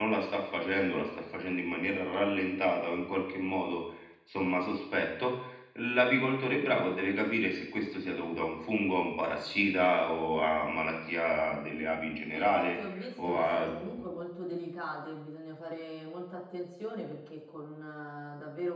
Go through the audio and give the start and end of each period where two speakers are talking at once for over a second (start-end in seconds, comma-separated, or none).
12.3-13.7